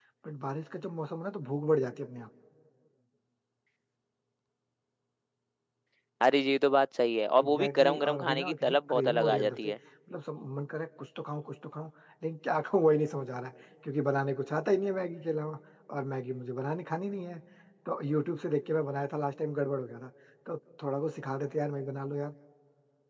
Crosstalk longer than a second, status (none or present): present